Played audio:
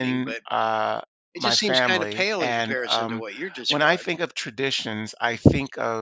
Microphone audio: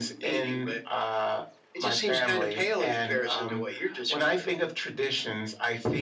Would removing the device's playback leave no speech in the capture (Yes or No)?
Yes